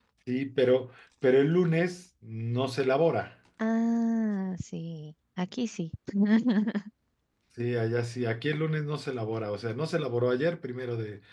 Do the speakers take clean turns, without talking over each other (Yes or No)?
Yes